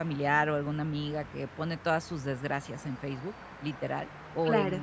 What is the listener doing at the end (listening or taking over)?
listening